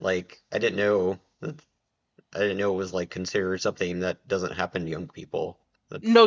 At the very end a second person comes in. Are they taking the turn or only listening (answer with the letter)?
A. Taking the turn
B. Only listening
A